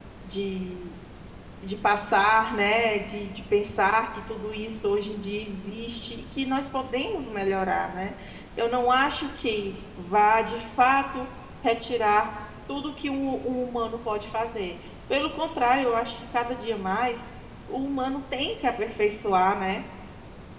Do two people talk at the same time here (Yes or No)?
No